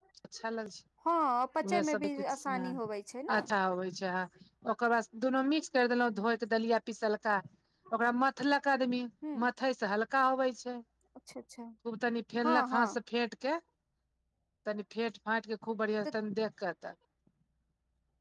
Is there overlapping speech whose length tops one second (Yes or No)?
No